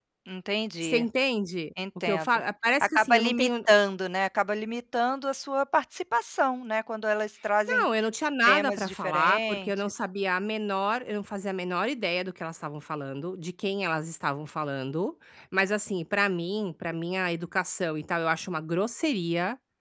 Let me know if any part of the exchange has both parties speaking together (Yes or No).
Yes